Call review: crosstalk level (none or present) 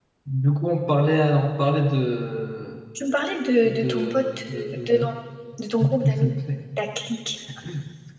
present